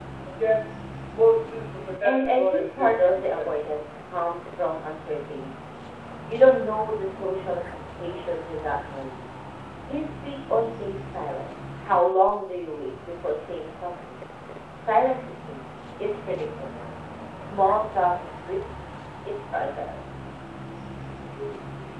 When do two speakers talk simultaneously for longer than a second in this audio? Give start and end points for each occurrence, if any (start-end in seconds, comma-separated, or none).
2.0-3.6